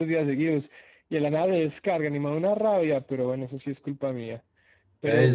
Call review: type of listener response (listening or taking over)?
taking over